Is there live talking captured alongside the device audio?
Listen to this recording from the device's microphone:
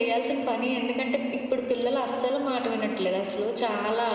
No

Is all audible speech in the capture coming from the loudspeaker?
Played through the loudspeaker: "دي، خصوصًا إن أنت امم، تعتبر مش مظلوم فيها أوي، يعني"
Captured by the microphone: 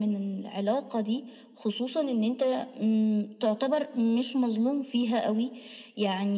Yes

